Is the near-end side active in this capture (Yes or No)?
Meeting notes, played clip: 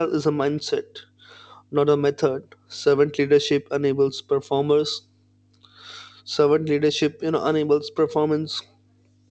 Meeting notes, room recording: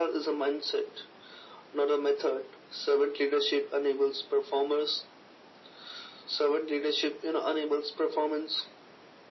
No